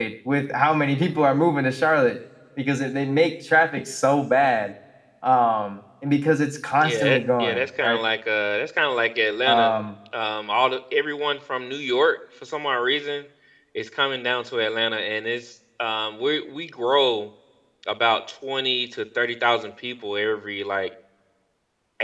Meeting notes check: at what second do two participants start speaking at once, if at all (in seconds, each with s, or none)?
6.8 s